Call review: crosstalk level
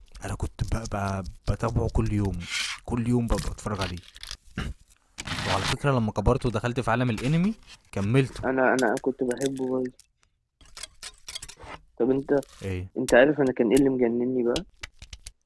none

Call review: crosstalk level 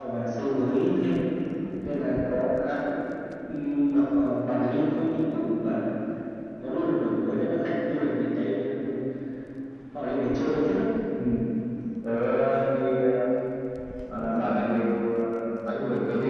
none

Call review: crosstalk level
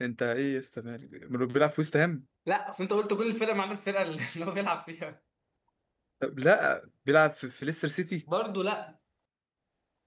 none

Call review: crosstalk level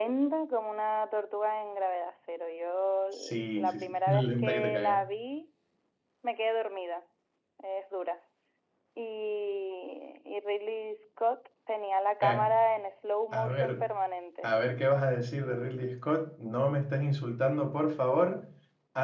present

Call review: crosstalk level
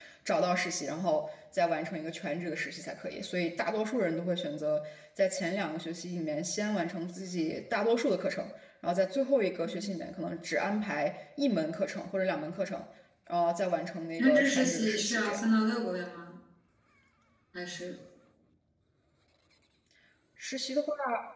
present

